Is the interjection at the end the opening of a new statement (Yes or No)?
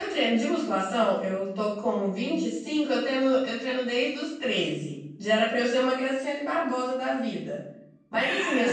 No